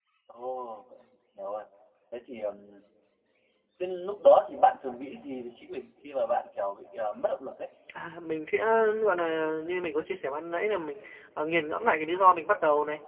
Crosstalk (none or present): none